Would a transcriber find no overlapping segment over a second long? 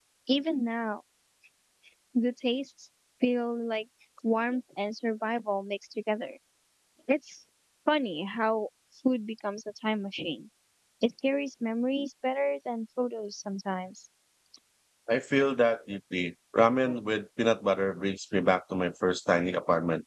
Yes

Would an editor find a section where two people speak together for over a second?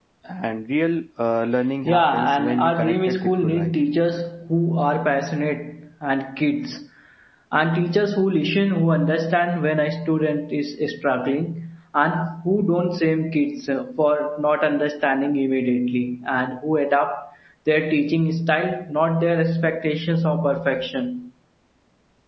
Yes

